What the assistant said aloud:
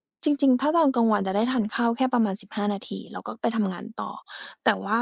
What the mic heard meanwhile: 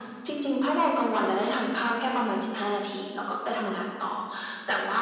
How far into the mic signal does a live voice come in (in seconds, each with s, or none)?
none